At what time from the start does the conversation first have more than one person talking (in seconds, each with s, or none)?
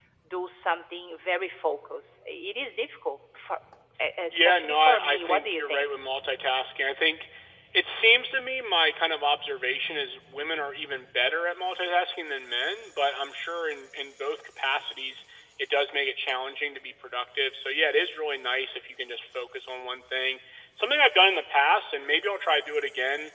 4.3 s